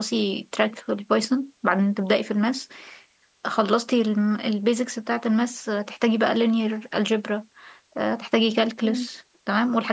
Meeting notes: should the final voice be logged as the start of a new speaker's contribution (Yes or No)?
No